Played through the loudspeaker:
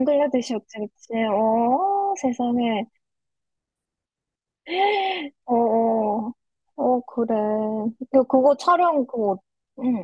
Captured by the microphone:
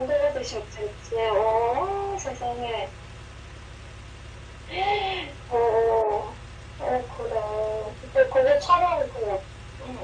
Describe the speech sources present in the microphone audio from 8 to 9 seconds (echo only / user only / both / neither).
echo only